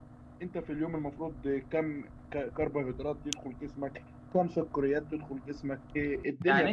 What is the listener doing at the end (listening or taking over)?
taking over